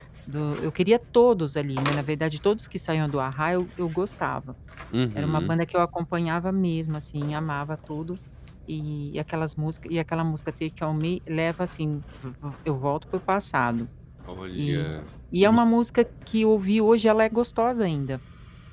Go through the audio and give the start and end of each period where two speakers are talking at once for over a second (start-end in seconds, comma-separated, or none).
none